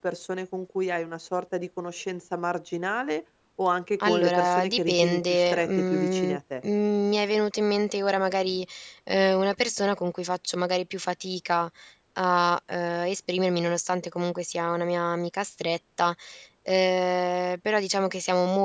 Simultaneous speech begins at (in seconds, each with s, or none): 4.0 s